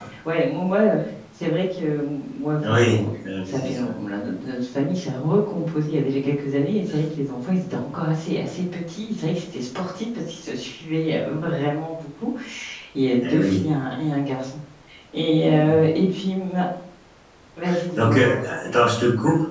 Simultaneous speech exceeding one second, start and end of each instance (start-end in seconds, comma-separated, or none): 2.6-3.9